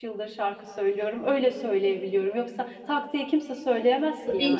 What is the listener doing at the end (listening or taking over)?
taking over